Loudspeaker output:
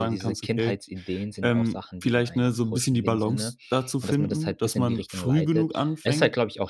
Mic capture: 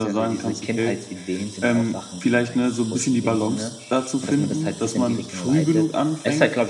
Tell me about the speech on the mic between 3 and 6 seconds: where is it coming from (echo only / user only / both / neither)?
echo only